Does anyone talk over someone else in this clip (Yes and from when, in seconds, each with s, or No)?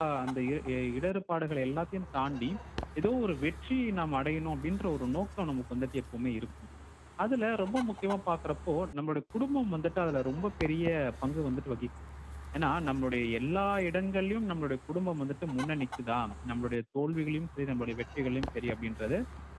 No